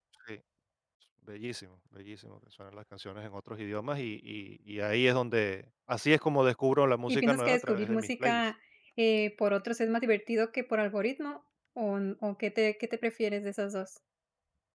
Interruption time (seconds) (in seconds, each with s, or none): 7.1 s